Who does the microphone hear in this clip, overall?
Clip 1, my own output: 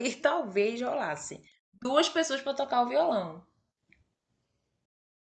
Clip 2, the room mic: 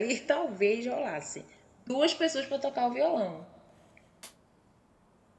echo only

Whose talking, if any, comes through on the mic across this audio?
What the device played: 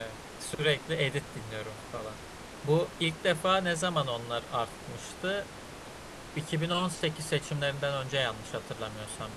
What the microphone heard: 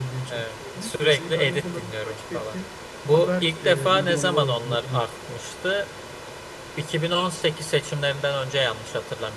both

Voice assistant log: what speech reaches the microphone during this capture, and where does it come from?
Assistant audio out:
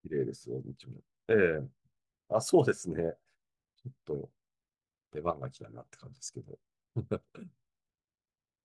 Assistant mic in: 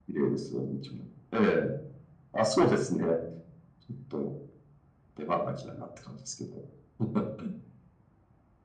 echo only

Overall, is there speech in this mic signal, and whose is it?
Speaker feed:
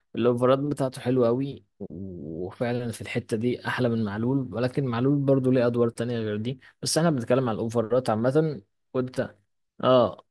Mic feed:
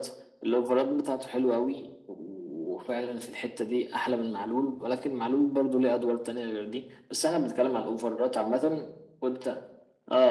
echo only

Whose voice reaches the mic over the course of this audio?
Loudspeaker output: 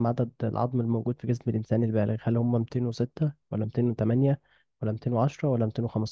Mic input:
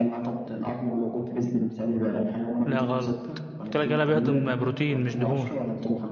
both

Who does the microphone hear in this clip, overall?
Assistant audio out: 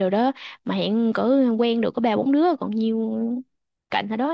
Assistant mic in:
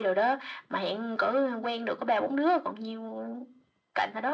echo only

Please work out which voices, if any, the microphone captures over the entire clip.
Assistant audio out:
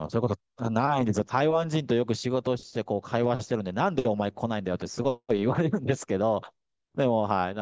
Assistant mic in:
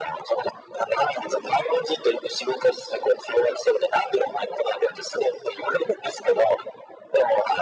echo only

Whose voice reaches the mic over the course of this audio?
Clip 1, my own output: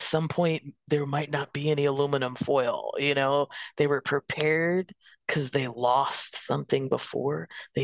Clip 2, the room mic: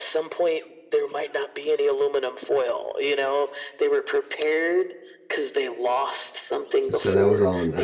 both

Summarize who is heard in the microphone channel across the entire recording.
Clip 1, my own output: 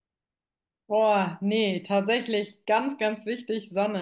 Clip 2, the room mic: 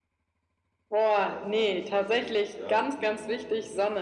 both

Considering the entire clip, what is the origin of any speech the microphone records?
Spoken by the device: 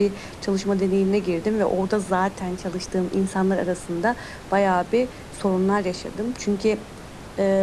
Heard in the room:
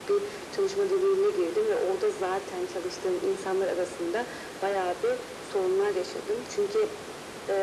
echo only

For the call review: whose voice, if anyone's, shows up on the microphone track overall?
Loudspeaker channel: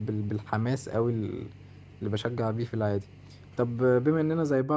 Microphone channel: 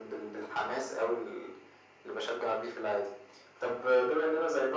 echo only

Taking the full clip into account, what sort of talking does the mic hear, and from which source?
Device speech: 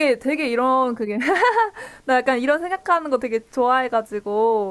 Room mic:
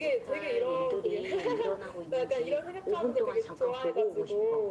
both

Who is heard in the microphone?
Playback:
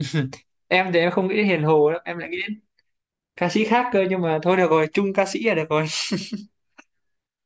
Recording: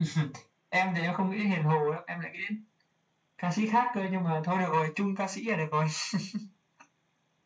echo only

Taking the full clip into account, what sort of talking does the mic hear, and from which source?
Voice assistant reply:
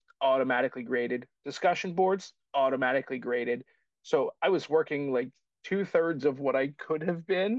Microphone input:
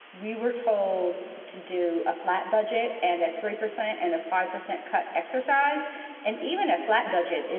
user only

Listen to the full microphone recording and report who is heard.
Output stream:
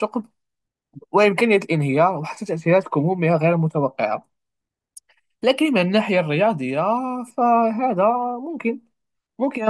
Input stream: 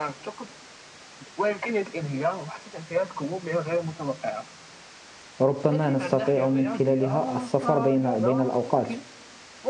both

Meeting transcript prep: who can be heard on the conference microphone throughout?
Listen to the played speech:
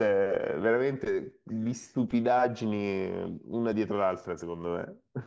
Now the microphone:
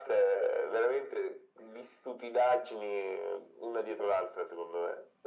echo only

